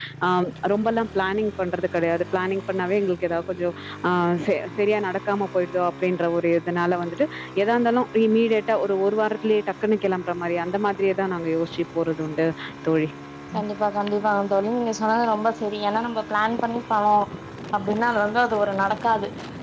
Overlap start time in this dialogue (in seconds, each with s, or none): none